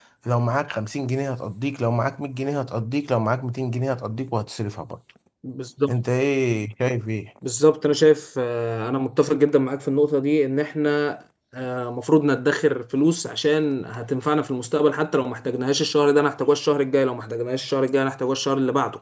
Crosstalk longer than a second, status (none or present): none